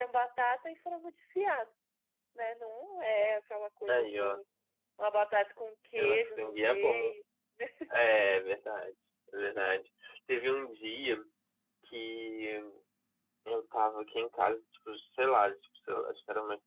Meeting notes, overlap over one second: present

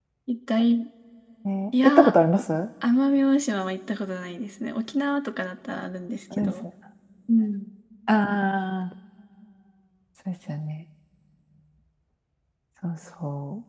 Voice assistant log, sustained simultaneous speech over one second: none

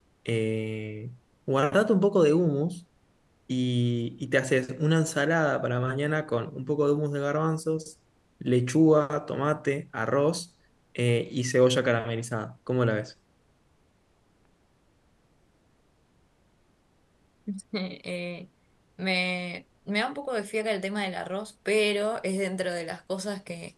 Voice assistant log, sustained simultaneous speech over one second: none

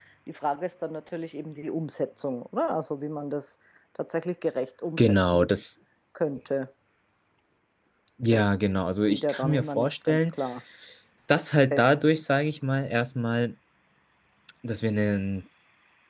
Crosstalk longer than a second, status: present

